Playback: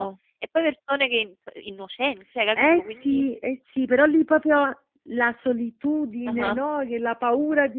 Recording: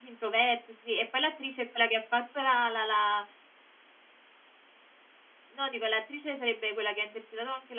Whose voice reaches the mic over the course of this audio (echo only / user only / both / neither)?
user only